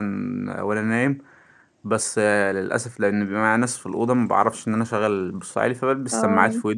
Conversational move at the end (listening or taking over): listening